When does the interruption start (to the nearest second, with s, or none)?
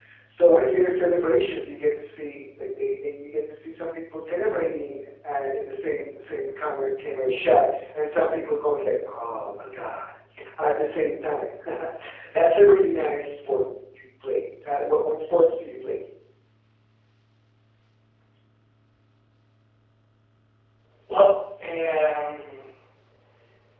none